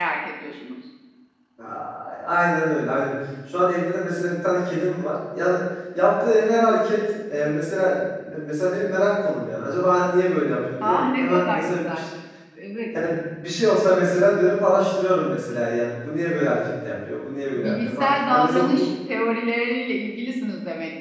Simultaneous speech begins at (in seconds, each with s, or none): 10.8 s